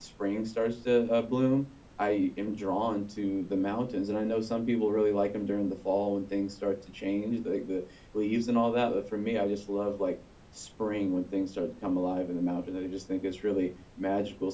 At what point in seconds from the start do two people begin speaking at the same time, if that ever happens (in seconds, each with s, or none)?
none